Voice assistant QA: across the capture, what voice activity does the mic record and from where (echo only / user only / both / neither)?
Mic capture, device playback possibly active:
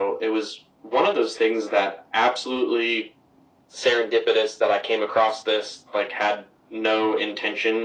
echo only